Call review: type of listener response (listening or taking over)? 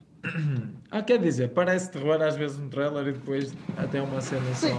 taking over